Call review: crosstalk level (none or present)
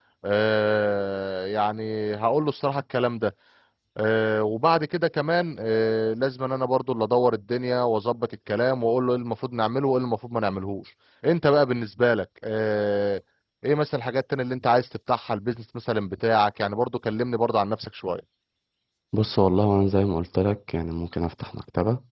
none